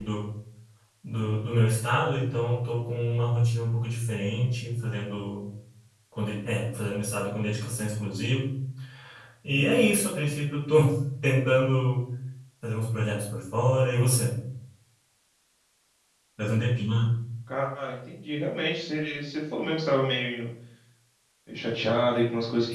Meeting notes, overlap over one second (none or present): none